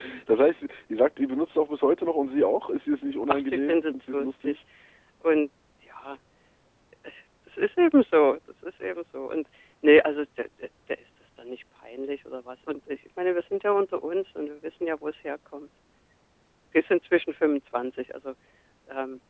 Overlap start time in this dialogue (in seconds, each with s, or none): 3.3 s